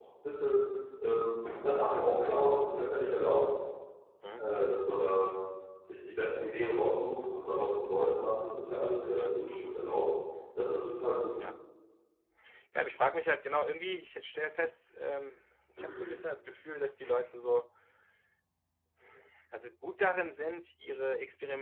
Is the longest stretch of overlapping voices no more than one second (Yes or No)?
Yes